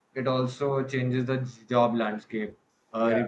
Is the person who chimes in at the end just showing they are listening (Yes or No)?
Yes